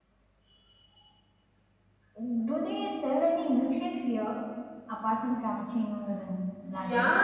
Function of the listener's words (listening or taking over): taking over